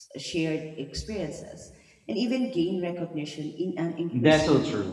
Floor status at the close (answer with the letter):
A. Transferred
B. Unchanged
A